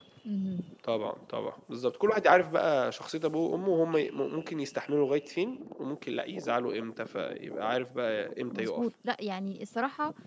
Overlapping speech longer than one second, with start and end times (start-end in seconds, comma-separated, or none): none